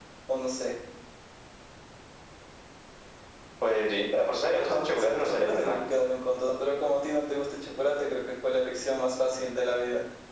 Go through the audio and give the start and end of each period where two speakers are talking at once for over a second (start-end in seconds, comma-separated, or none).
4.5-5.8